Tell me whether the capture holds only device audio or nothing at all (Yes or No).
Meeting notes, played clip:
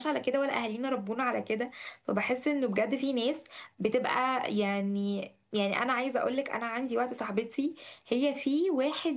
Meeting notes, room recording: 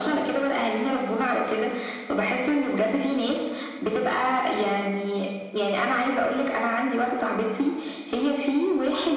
Yes